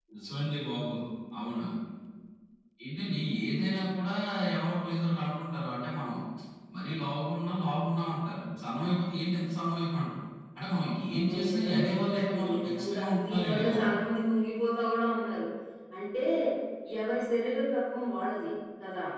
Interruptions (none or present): present